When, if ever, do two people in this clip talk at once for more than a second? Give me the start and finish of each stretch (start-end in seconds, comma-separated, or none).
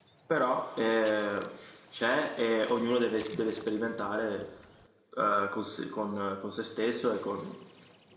none